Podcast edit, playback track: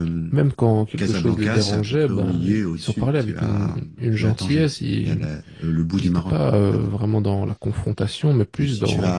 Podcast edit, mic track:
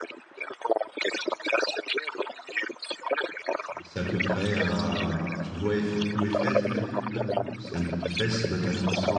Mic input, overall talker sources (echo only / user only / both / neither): both